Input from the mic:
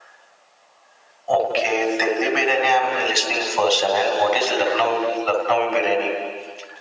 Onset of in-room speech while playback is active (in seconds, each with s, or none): none